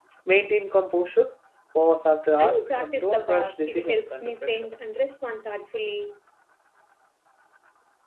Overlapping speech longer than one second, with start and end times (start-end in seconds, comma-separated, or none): 2.4-4.7